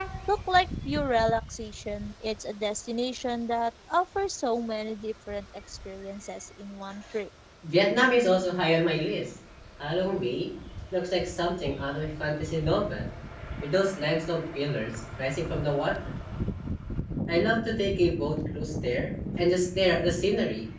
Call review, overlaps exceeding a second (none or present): none